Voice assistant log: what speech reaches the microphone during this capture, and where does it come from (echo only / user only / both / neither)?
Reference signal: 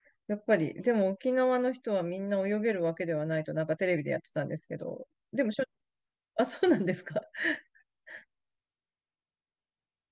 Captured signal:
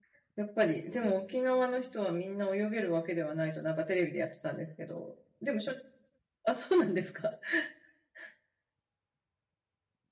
both